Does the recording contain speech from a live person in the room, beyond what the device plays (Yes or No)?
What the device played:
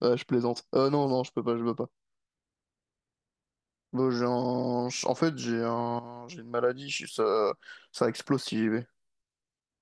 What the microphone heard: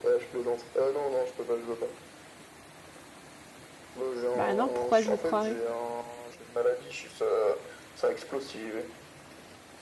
Yes